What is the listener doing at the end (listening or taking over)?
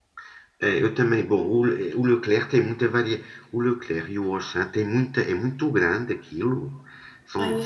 listening